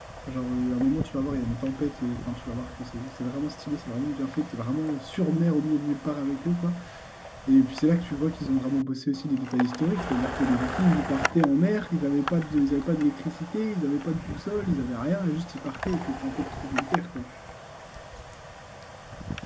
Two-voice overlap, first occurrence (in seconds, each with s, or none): none